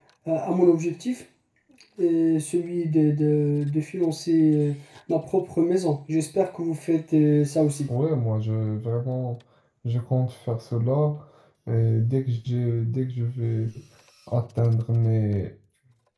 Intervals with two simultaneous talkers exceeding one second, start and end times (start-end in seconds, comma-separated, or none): none